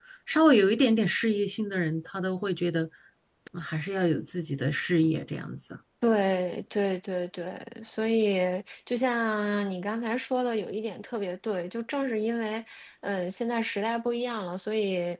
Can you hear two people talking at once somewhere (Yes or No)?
No